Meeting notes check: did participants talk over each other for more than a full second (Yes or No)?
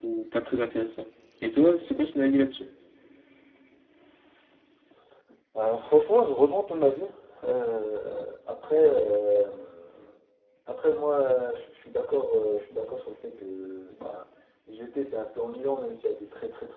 No